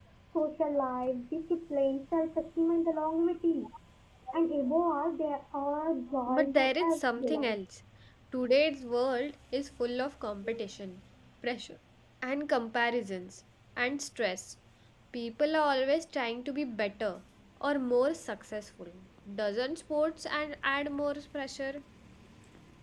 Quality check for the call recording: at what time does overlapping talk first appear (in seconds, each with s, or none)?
6.3 s